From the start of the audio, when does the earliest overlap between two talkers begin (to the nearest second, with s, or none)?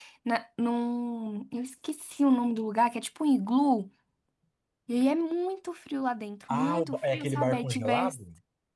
6 s